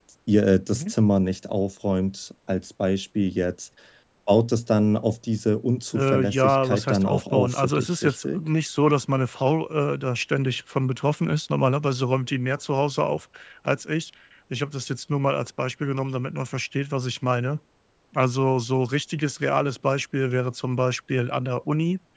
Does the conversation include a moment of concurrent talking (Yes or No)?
Yes